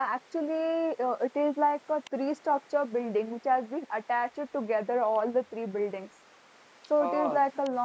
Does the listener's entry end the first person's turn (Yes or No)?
No